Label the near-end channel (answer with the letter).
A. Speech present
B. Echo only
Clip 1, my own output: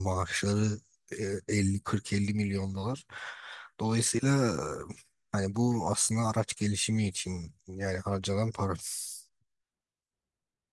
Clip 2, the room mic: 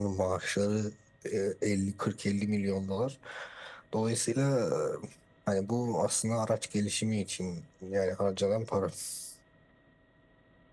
B